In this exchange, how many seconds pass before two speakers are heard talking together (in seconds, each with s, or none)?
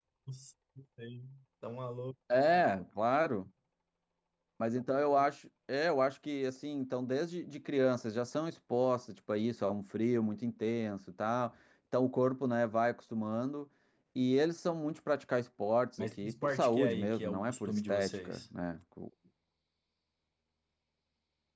16.0 s